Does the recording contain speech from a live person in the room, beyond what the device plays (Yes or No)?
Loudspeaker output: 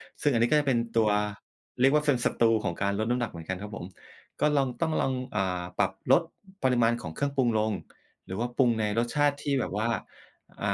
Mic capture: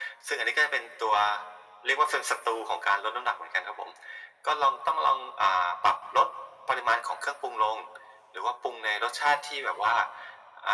No